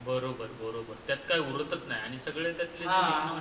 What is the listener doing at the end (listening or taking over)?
listening